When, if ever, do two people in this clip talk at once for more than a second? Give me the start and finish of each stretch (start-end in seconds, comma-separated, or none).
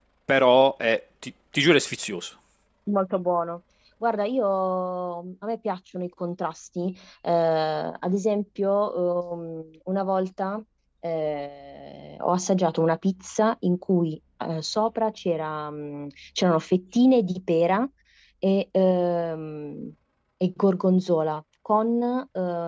none